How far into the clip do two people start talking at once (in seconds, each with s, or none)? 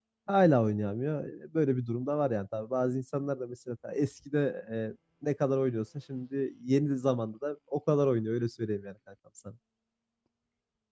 none